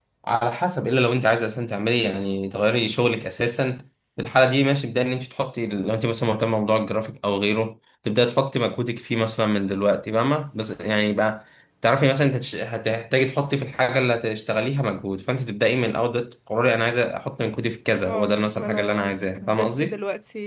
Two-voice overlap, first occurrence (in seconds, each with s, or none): 18.1 s